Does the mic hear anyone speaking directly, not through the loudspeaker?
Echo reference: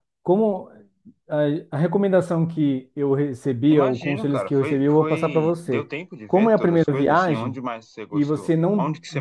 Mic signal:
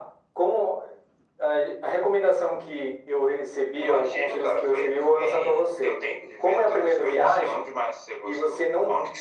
No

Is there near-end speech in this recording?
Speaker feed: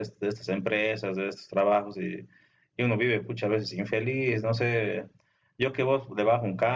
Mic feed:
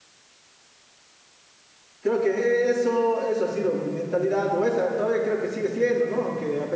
Yes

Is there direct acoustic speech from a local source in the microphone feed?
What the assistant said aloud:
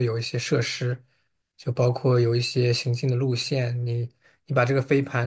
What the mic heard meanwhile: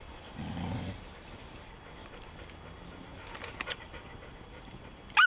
No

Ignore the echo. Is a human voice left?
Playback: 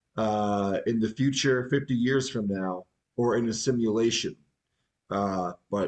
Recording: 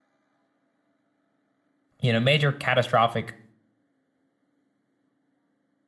Yes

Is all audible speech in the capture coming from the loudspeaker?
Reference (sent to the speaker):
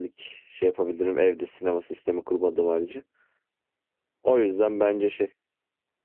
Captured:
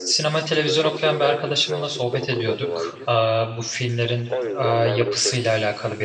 No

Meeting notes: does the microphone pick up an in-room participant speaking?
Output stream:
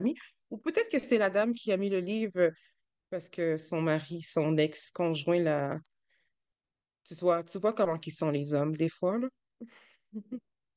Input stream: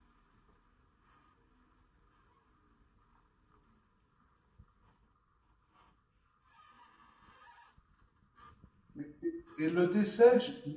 Yes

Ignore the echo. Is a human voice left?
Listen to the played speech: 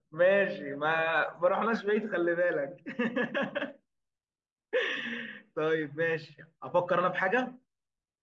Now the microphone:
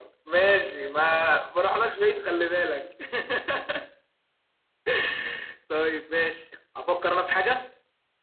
No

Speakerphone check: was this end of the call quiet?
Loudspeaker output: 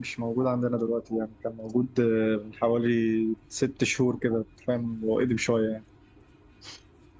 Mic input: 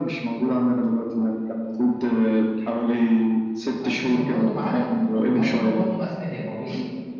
No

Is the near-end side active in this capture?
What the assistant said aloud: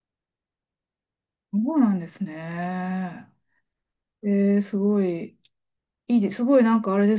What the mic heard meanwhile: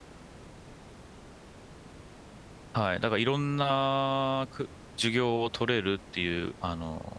Yes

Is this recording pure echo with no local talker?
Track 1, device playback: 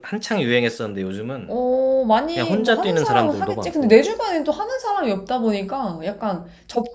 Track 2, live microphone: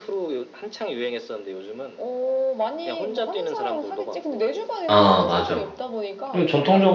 No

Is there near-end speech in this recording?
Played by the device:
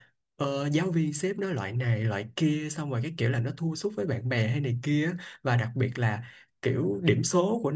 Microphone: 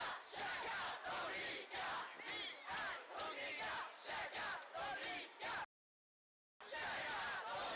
No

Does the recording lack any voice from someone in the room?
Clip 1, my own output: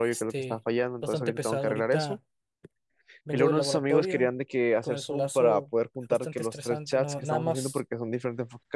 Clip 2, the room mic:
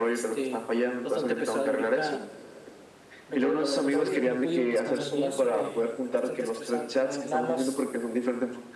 No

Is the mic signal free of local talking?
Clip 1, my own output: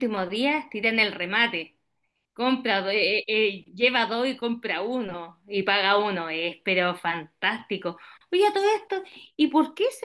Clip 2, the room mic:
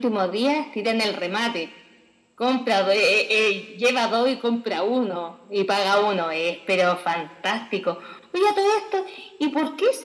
Yes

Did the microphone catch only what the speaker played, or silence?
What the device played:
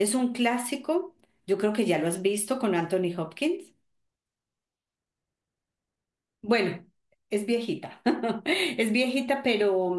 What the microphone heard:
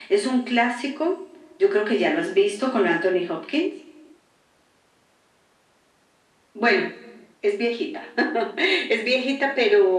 Yes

